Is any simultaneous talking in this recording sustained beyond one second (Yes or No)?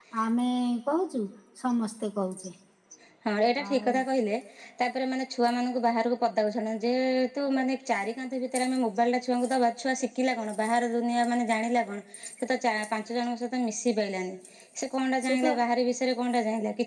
No